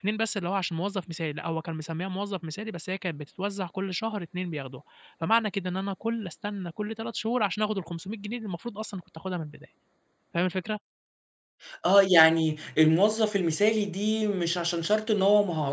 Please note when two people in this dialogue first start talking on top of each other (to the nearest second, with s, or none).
none